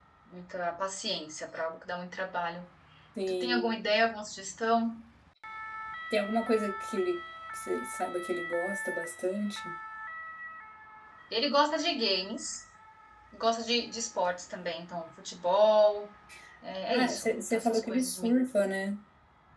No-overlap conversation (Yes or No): No